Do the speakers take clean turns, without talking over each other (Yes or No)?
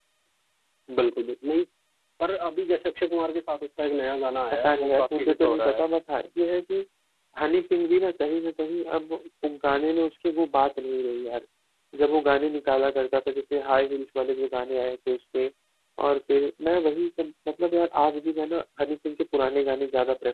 No